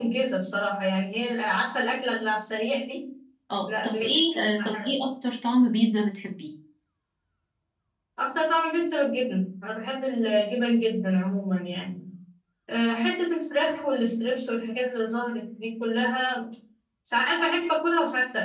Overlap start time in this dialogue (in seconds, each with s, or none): 3.7 s